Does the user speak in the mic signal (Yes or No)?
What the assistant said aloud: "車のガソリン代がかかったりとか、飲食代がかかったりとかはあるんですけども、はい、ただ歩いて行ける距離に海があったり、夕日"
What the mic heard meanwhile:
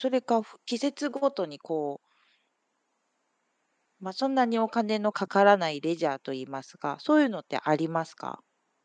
Yes